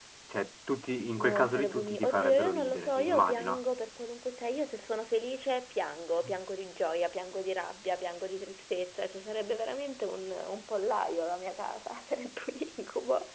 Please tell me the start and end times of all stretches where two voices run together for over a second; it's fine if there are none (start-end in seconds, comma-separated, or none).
1.2-3.6